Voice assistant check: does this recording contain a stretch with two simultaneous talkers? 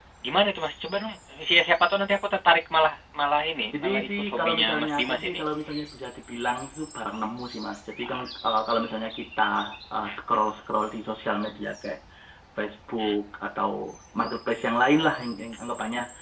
Yes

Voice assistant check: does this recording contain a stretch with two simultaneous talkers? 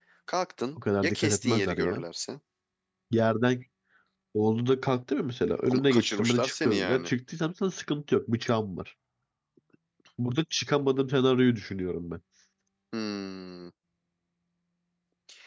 Yes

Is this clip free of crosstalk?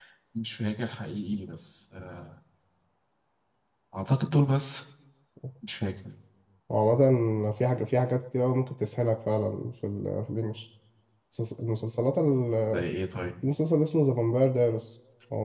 Yes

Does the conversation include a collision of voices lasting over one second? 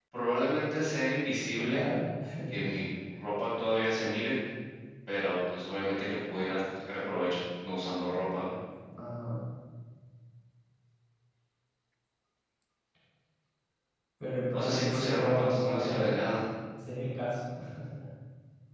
Yes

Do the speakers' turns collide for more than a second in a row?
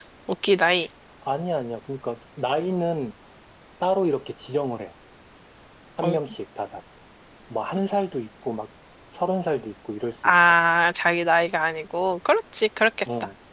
No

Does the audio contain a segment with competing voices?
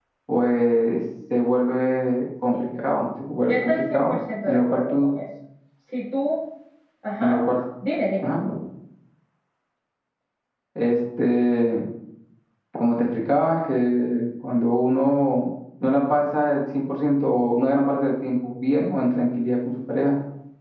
Yes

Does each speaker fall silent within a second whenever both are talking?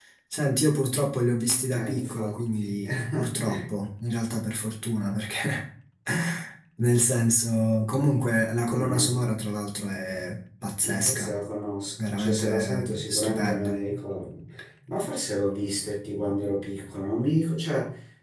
No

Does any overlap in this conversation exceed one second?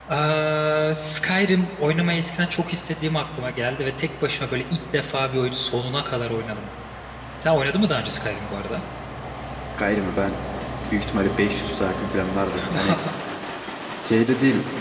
No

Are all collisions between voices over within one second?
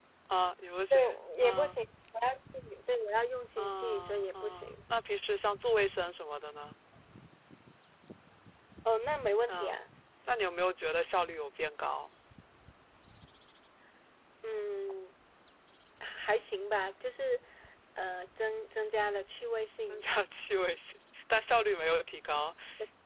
No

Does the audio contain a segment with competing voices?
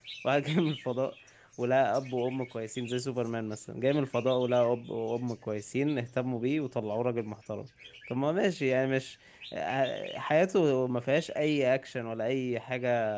No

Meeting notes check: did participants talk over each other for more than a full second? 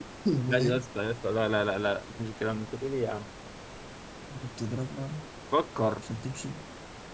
No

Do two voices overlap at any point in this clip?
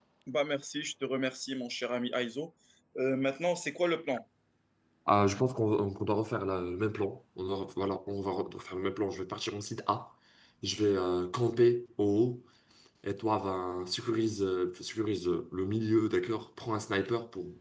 No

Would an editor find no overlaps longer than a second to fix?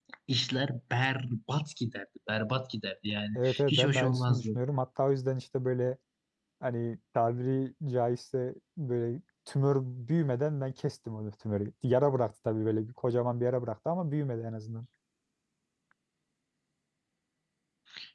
No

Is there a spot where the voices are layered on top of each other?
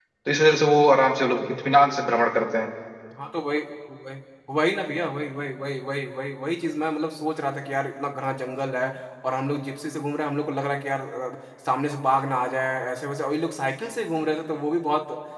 No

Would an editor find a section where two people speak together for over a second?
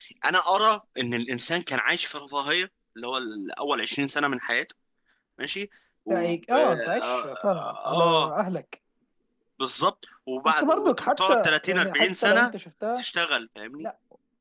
Yes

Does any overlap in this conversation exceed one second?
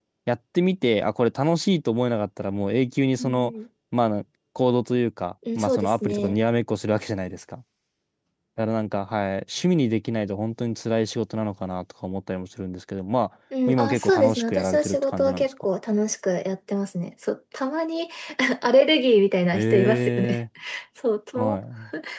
Yes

